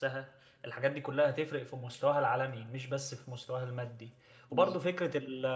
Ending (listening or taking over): listening